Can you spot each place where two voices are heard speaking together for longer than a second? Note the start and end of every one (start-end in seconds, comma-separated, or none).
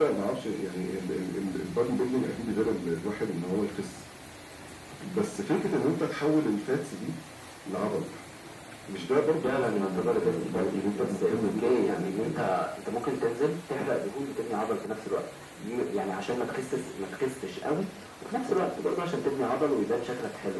9.4-12.4